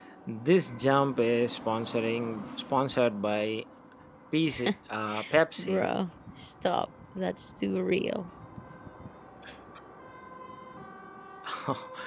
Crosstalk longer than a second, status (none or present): none